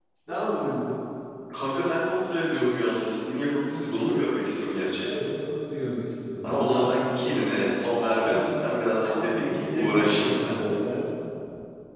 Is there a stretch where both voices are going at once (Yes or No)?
Yes